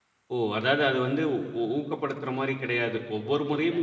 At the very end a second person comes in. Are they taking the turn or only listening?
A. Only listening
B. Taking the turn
A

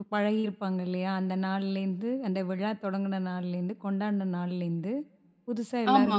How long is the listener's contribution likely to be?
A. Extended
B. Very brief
B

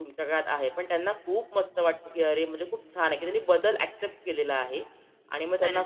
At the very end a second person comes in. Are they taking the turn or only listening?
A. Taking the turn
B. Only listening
B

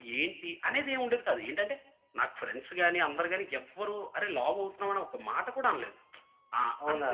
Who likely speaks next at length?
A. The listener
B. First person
B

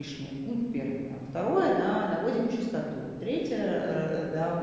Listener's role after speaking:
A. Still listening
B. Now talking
A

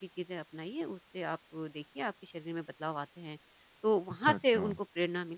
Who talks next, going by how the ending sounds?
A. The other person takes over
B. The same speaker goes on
B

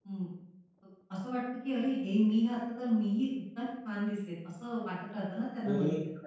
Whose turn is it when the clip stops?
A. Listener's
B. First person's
A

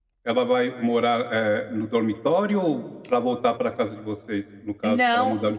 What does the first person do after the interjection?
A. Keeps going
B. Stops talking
B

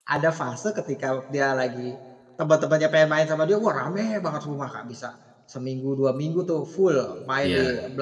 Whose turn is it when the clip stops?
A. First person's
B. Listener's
A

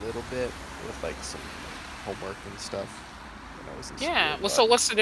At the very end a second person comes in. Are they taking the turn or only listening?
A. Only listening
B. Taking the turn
B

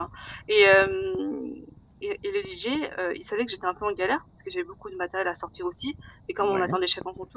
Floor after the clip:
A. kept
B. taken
A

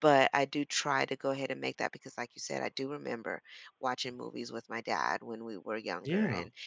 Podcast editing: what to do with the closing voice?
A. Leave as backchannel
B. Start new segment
A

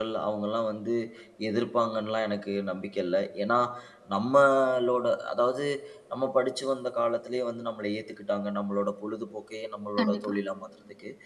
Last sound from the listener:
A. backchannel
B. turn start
A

